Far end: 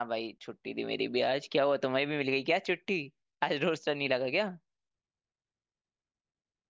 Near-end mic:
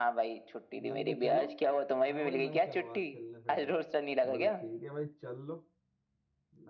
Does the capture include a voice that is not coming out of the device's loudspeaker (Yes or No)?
Yes